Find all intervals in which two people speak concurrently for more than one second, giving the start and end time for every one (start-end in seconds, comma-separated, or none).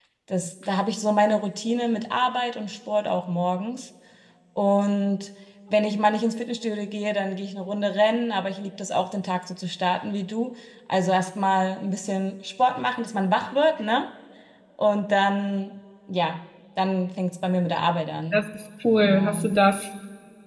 none